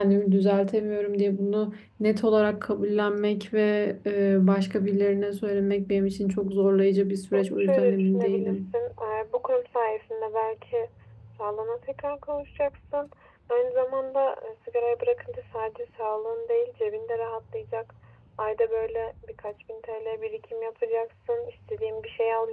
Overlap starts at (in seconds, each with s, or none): 7.3 s